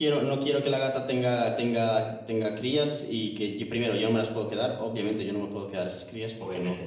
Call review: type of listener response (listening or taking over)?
listening